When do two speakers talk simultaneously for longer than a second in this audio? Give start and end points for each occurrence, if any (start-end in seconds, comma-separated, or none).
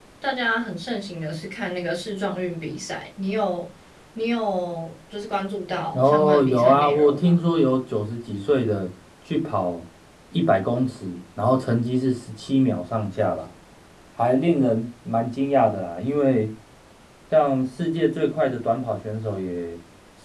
5.9-7.4